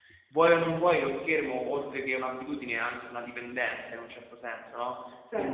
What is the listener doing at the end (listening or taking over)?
taking over